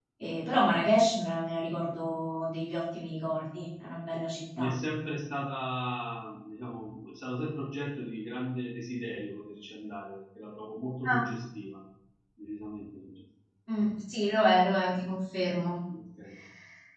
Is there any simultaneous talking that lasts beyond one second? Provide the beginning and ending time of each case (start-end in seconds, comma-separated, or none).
none